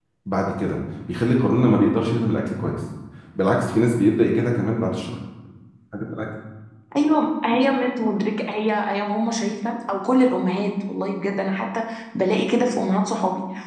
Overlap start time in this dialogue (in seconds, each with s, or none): none